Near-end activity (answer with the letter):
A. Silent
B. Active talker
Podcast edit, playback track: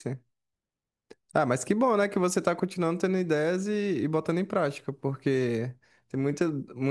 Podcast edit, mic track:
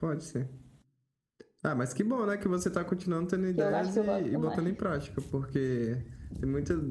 B